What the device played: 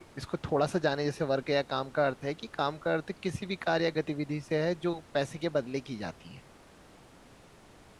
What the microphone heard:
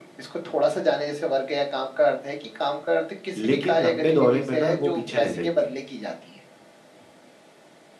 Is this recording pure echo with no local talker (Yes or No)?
No